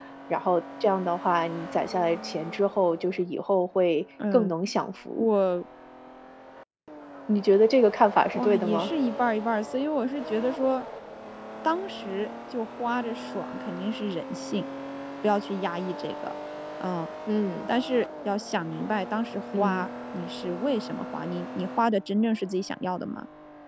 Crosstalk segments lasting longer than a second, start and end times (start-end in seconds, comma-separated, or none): none